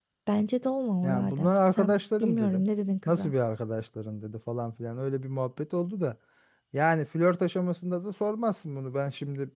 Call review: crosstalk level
present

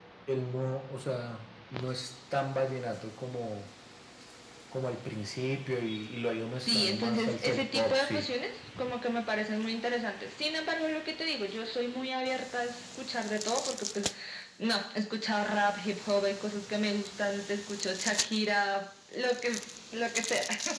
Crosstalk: present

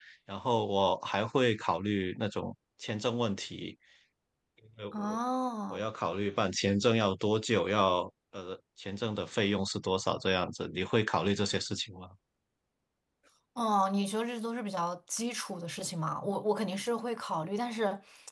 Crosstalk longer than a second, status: none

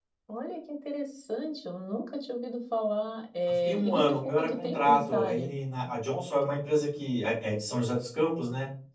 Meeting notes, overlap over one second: present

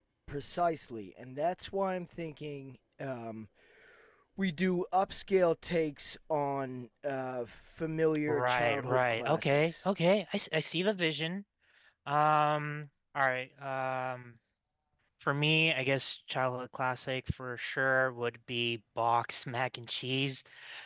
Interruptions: present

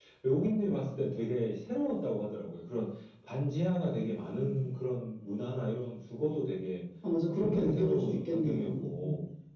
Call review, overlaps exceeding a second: present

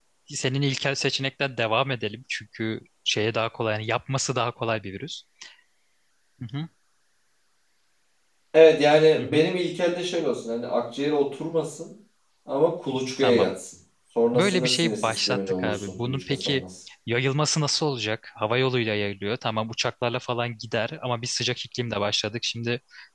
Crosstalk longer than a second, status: present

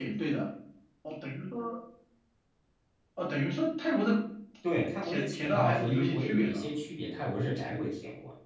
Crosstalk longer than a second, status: present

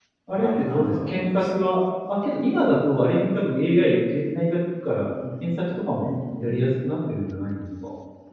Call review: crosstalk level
present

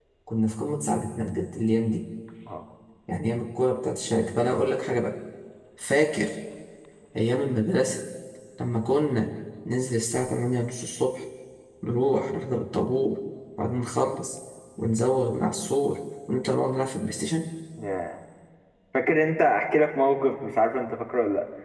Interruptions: none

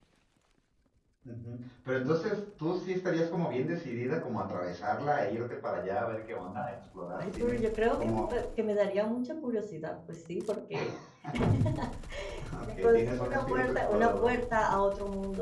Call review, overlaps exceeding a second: present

